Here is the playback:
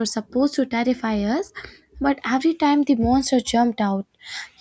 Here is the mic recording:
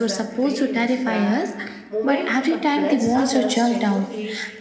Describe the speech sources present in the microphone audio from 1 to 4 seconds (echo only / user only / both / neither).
both